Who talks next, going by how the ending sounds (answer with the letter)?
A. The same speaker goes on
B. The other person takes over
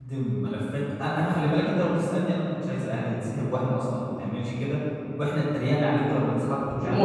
B